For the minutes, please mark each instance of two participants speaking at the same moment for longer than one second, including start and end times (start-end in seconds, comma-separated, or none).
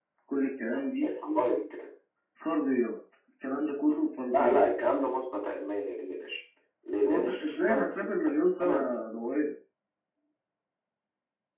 7.0-9.0